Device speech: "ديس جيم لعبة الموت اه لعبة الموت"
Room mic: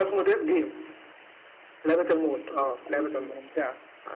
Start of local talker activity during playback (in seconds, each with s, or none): 2.5 s